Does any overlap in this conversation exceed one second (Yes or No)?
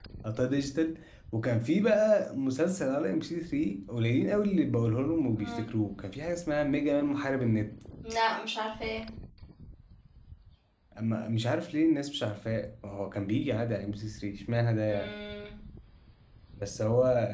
No